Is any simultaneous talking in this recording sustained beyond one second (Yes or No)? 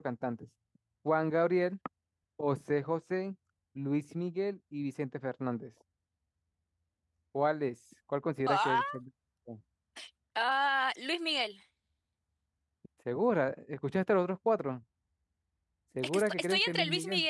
Yes